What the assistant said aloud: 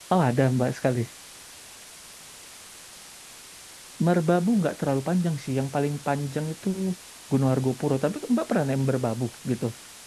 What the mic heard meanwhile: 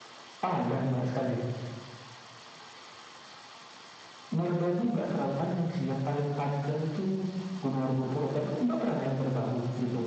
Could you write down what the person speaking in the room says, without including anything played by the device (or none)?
none